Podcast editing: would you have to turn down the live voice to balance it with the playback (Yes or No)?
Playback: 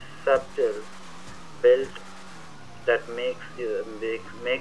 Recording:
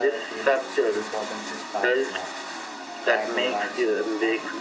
No